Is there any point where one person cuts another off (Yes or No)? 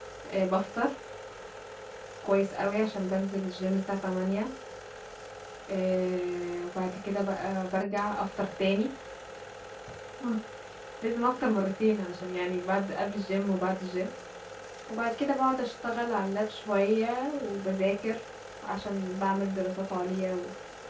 No